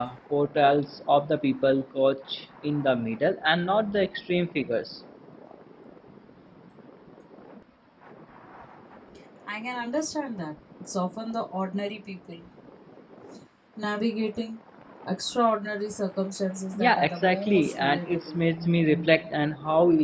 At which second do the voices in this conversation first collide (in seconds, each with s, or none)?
16.7 s